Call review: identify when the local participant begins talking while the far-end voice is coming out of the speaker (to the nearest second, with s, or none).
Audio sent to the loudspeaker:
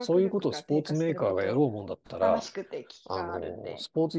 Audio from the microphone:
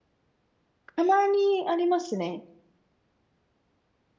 1 s